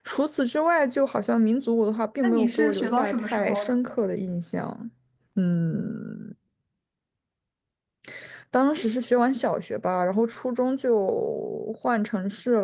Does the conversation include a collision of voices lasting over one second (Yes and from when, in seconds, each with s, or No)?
Yes, from 2.2 s